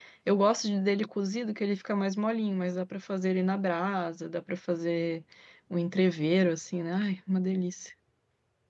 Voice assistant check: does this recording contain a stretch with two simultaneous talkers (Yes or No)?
No